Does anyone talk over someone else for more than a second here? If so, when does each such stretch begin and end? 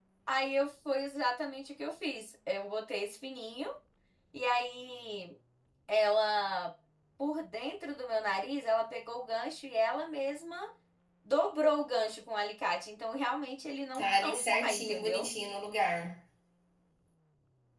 13.9-15.3

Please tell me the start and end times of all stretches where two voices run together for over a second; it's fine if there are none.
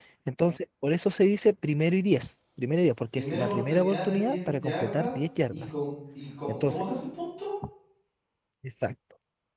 3.1-5.7

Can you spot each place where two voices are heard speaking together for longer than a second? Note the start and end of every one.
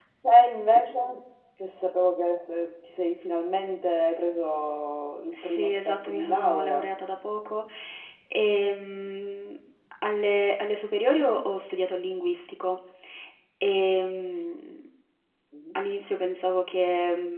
5.3-6.9

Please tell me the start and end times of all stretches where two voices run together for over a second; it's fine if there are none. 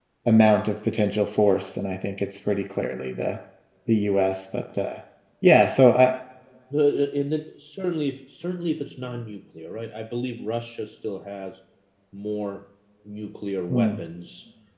none

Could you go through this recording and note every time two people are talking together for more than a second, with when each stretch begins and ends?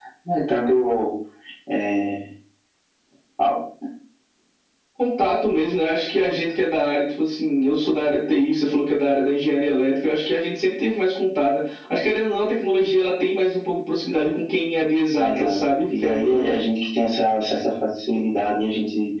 15.2-16.5

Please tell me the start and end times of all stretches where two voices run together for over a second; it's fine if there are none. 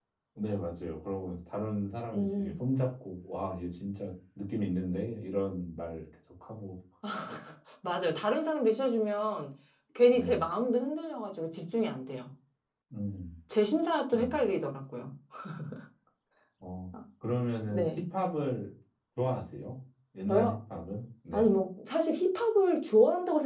none

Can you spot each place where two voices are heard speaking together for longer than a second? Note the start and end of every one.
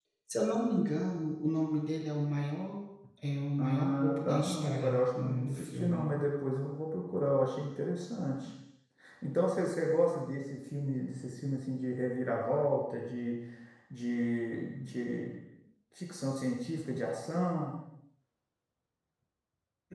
3.6-6.1

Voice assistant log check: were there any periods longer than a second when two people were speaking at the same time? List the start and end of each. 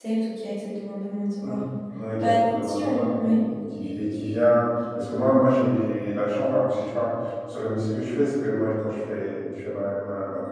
2.2-3.4

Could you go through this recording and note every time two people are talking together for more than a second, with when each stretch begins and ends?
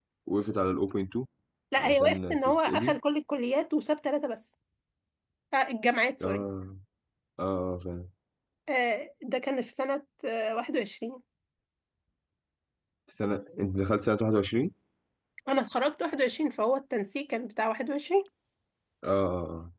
1.8-3.0

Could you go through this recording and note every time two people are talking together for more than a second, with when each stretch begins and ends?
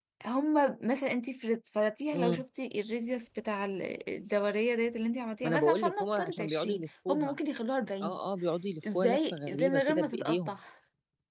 5.4-7.4, 8.9-10.5

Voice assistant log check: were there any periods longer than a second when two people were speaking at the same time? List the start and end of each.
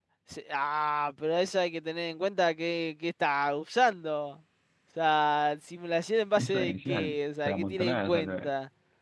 6.4-8.4

